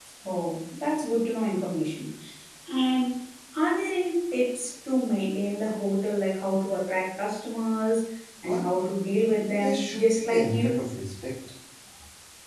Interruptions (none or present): present